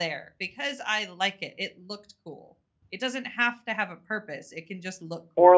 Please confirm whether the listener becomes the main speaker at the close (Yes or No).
Yes